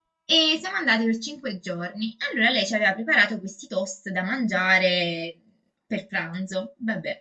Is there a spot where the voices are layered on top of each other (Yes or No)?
No